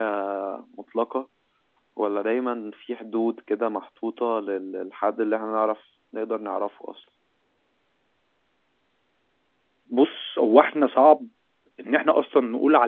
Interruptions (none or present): none